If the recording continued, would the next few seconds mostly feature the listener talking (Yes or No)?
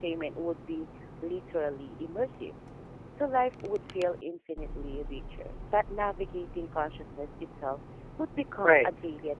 Yes